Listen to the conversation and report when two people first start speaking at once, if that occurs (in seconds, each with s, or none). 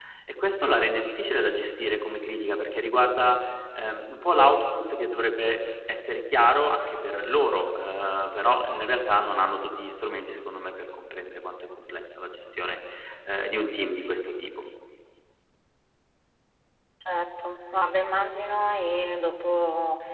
none